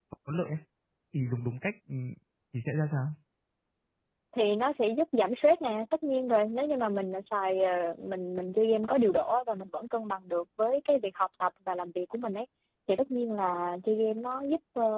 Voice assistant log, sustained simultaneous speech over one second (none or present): none